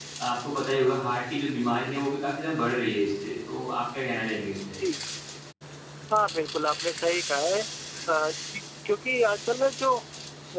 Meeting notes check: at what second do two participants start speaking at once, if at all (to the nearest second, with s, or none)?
none